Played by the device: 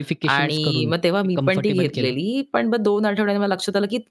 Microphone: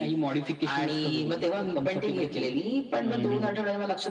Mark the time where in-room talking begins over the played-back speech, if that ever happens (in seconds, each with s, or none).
3.0 s